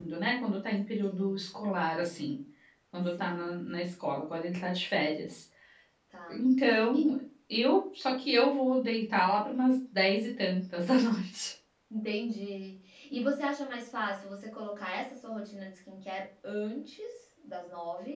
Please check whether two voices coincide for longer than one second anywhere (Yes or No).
No